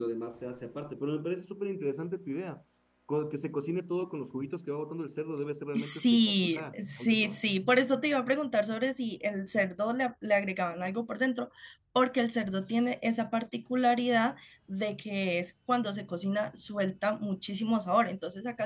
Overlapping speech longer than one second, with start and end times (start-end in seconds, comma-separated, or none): 5.7-7.4